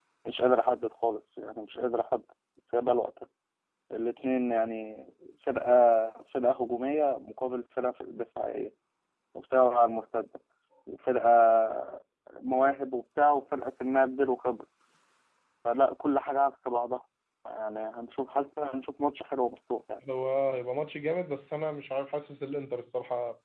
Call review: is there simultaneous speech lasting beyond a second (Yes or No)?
No